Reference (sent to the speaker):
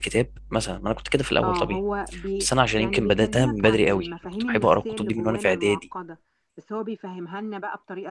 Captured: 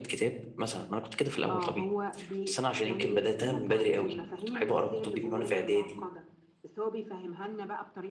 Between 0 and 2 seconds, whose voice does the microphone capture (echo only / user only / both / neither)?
echo only